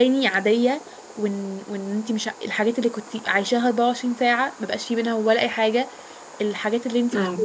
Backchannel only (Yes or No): Yes